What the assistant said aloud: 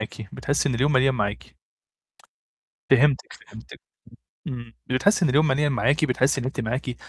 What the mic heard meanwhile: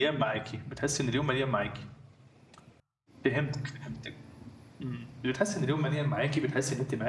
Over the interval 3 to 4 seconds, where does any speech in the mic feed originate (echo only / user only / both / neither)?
echo only